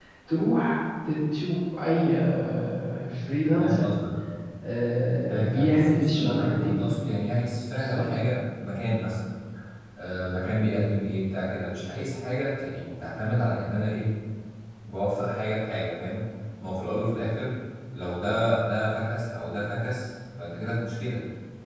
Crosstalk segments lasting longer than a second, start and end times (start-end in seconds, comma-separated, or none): 5.5-6.7